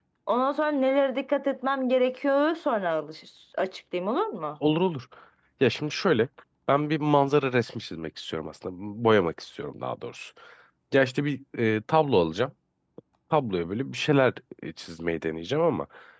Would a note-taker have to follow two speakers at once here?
No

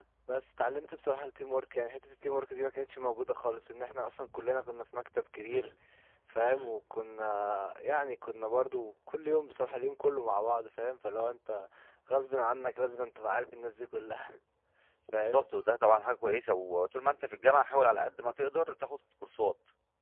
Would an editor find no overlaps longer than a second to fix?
Yes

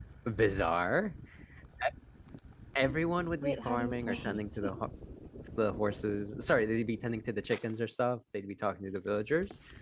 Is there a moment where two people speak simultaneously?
Yes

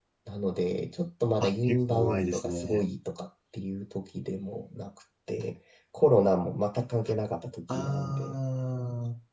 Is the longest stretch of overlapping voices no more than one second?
No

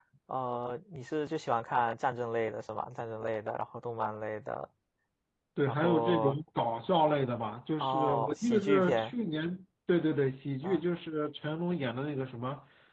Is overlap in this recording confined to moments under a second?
No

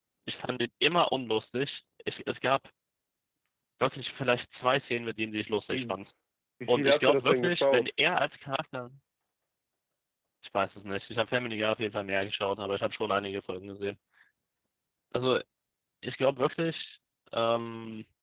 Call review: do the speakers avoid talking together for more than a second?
No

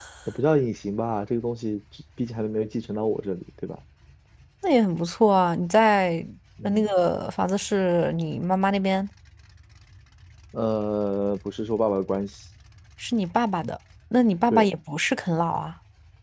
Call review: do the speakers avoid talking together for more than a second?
Yes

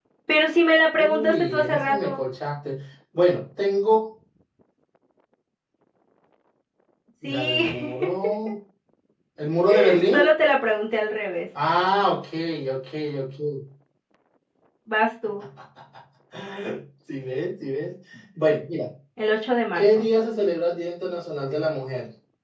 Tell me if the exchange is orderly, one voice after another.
No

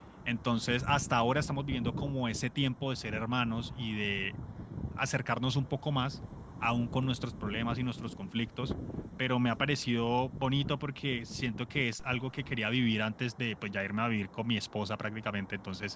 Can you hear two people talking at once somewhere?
No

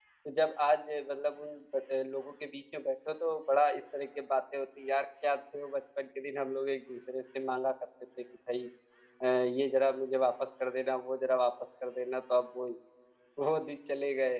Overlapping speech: No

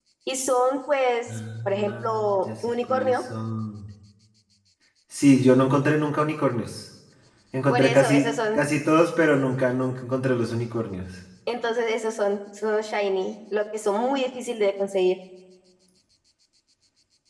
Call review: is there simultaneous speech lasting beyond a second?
Yes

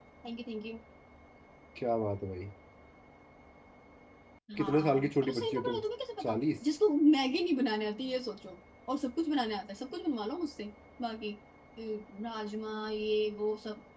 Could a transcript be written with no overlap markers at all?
No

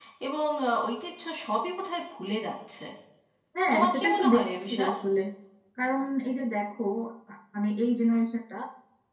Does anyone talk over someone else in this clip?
Yes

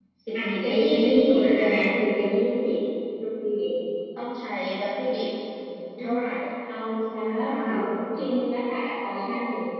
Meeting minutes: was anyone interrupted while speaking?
Yes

